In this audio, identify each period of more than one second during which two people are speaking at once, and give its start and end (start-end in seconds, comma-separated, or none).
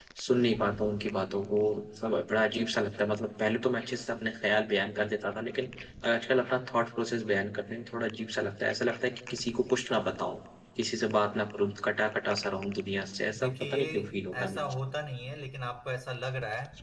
13.4-14.7